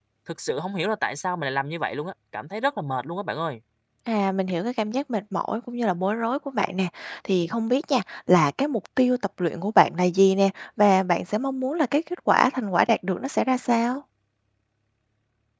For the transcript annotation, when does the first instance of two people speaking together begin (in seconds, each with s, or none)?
none